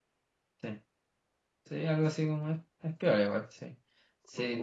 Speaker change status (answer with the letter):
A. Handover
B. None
A